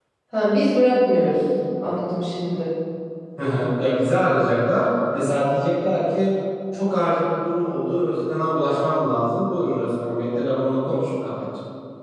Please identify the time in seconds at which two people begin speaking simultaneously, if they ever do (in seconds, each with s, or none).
none